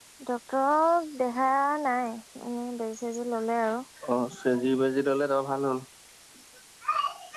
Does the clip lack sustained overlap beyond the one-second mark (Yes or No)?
Yes